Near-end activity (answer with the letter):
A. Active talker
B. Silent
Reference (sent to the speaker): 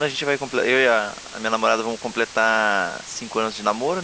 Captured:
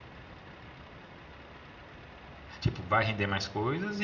A